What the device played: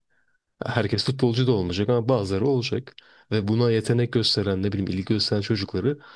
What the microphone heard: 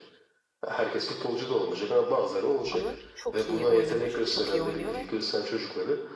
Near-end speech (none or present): present